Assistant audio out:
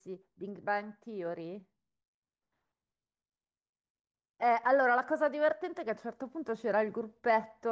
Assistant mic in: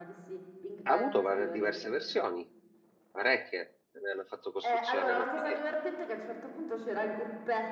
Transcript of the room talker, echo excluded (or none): Ha avuto var- diverse versioni, parecchie, ne hanno fatto costruzione non finire.